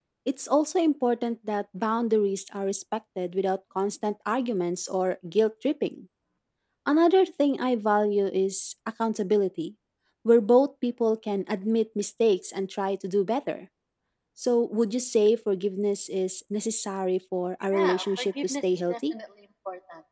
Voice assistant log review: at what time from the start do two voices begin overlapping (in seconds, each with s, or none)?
17.6 s